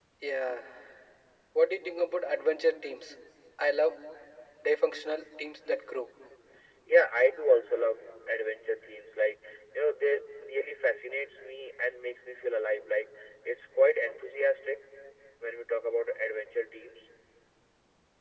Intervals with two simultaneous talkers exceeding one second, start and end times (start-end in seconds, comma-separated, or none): none